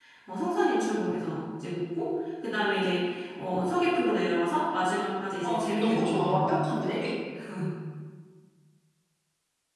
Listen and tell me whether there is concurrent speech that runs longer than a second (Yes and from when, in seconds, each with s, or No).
Yes, from 5.4 s